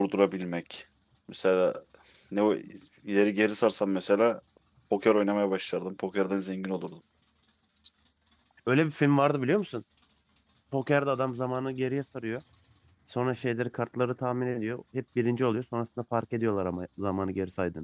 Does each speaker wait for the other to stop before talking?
Yes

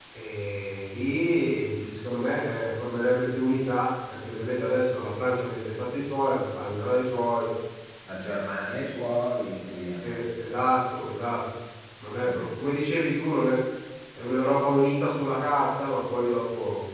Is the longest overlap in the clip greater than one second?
No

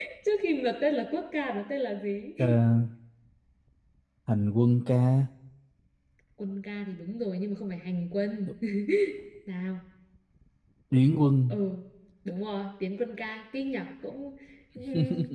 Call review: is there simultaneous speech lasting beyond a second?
No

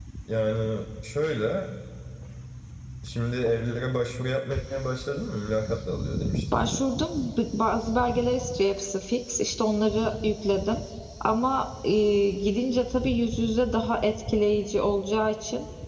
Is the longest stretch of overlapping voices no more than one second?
Yes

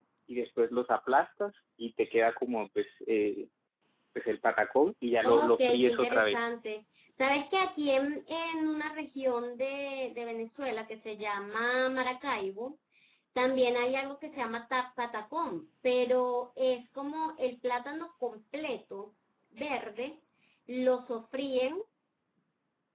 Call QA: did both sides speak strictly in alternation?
No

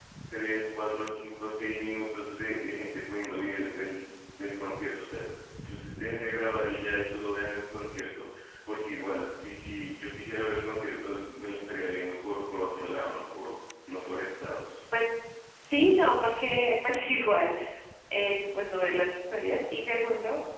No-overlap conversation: Yes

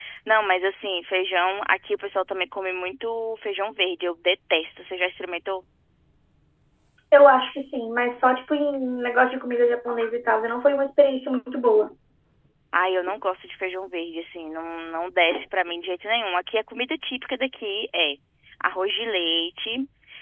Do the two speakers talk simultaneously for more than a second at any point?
No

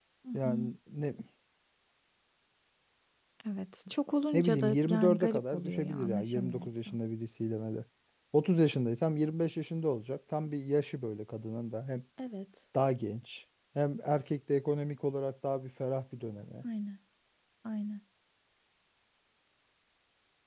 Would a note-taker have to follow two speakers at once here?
Yes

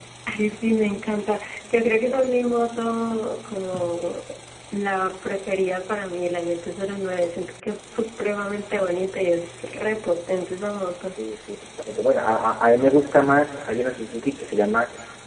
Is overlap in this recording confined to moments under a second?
Yes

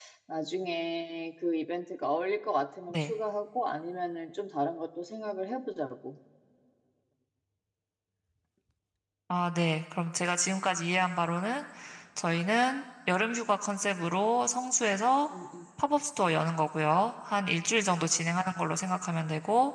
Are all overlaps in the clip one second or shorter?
Yes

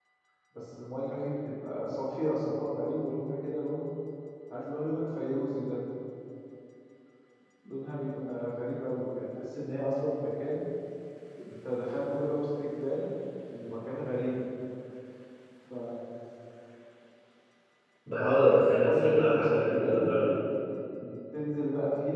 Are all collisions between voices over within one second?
No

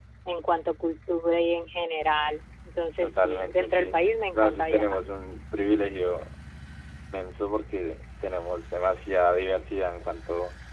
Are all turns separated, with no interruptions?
No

